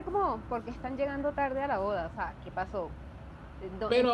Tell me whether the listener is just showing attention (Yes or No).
No